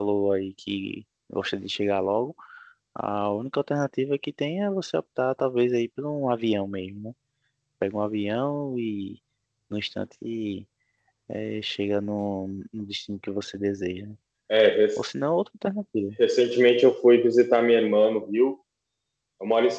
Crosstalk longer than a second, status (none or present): none